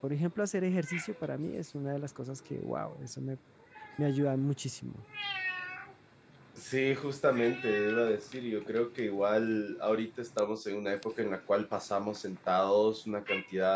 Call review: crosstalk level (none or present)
none